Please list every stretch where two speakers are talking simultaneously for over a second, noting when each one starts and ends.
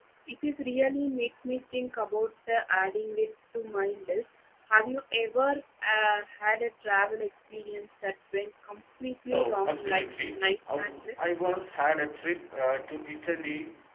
9.3-11.2

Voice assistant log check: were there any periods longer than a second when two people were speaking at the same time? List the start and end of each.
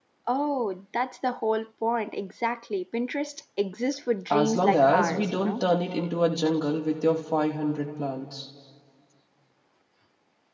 4.3-5.6

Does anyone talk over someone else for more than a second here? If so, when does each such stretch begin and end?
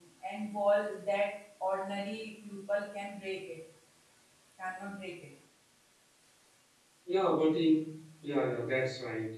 none

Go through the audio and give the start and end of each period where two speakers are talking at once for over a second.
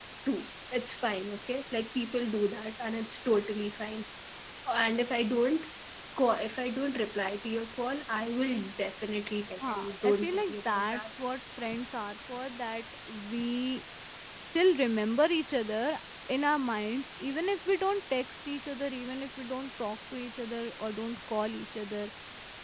9.7-11.0

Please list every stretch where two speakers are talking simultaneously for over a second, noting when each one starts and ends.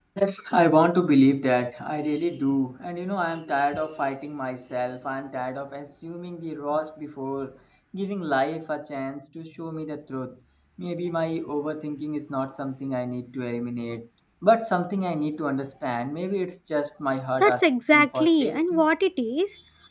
17.4-18.8

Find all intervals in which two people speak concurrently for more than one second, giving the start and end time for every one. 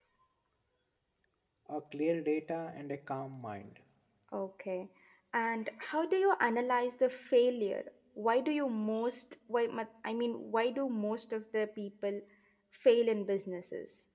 none

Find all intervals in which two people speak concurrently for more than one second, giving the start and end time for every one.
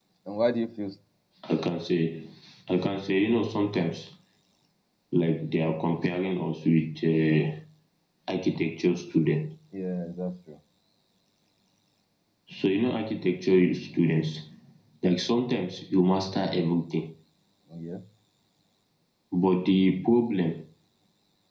none

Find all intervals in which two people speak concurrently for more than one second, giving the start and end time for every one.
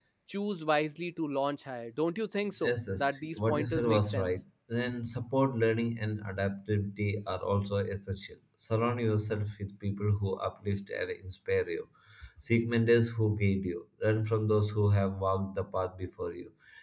2.6-4.3

